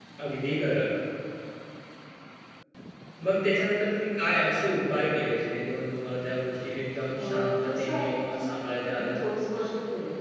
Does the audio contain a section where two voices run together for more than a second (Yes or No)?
Yes